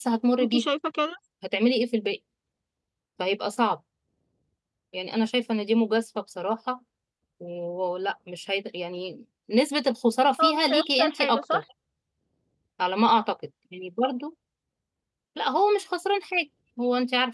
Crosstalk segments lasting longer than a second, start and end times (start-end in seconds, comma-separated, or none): 10.4-11.6